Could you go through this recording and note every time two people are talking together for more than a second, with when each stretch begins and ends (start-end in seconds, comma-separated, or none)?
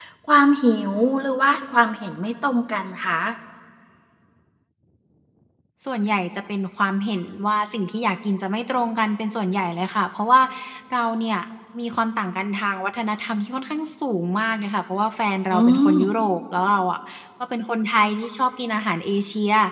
none